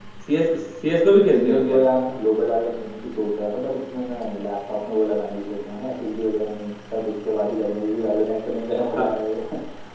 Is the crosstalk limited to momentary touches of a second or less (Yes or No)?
Yes